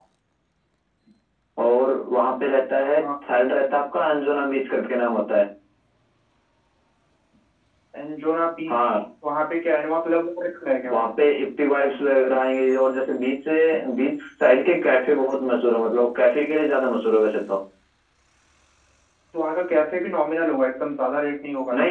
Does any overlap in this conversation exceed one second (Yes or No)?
No